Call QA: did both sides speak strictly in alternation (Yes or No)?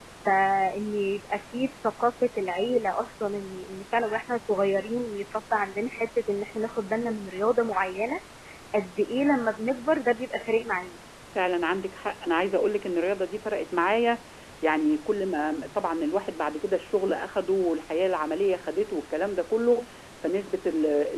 Yes